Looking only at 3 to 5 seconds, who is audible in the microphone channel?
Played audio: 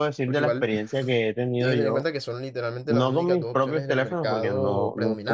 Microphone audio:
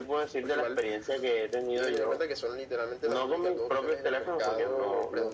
echo only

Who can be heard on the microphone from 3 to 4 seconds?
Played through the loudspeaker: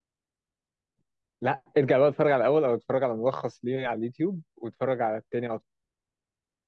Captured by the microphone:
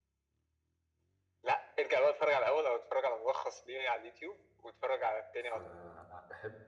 echo only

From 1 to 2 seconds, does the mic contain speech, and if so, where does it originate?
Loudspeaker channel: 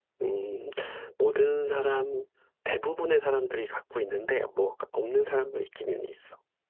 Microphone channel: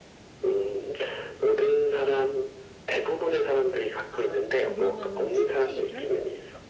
echo only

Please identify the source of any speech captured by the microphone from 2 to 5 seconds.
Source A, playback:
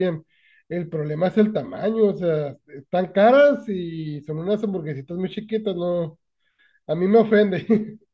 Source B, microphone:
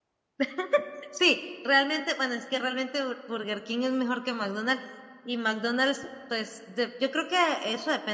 user only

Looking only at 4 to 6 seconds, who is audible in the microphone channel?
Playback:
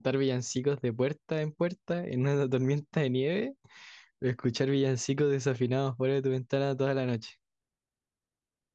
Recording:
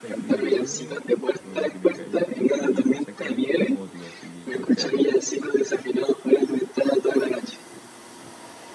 both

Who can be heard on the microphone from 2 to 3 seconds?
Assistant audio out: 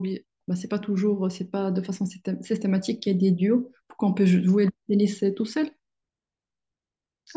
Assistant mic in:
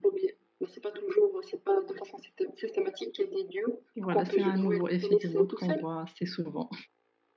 echo only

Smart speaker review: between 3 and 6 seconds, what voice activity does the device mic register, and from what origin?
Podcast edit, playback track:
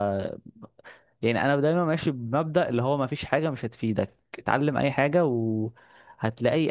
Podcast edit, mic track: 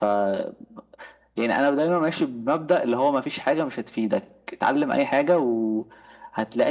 echo only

